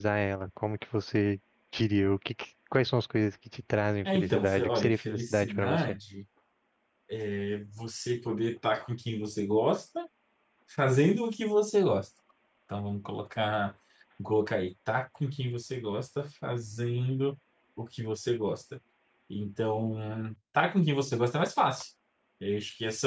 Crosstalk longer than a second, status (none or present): present